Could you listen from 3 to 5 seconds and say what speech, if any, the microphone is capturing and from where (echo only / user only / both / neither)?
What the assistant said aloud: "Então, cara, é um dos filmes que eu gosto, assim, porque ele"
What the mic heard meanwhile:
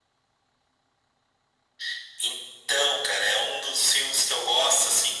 echo only